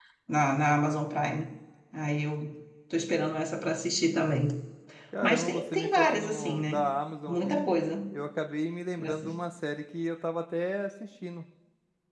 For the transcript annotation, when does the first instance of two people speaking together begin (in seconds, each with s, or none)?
5.2 s